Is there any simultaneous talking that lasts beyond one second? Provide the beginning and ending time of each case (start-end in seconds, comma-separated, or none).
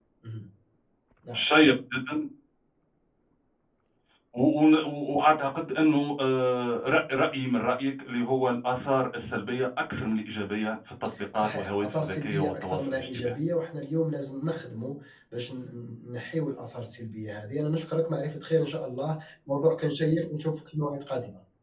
11.3-13.3